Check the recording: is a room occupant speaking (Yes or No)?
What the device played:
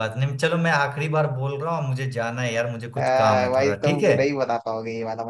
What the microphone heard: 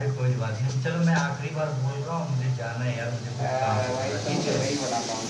No